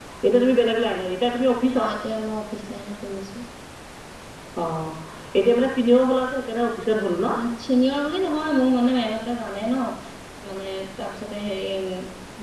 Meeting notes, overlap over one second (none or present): none